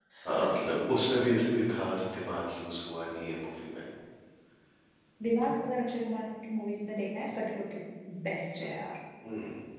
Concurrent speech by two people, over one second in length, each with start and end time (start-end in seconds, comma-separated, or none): none